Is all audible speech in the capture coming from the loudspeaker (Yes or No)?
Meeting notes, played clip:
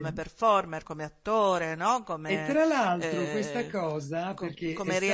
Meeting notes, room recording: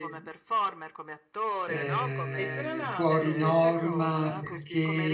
No